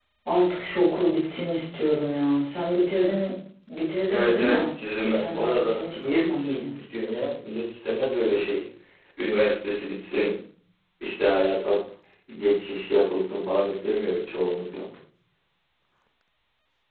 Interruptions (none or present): present